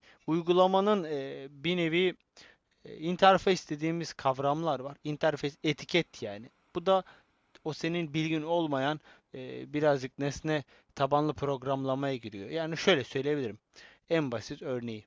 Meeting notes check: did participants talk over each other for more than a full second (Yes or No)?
No